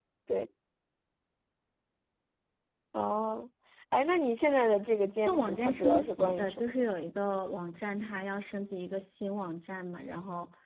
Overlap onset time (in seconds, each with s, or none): 5.2 s